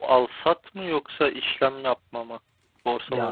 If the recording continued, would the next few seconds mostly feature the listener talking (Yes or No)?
Yes